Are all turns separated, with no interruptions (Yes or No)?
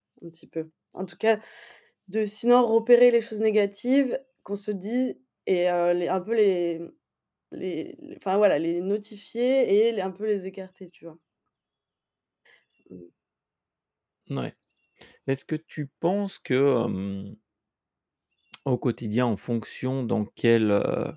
Yes